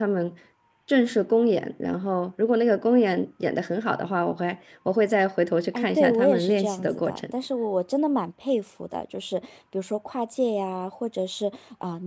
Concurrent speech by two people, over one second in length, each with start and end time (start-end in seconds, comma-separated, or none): 5.7-7.2